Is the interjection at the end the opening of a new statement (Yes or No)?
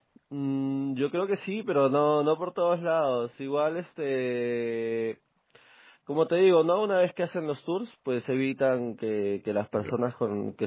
No